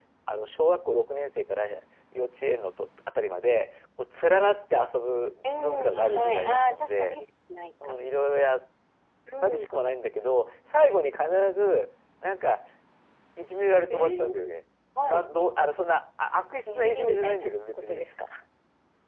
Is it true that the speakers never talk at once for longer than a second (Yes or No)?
No